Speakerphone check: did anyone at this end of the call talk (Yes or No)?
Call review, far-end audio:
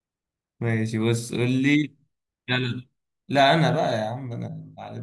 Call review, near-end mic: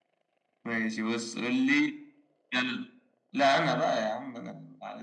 No